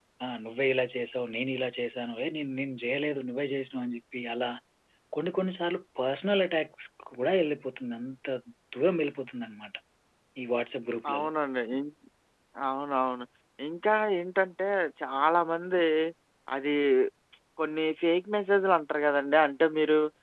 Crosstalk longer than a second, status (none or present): none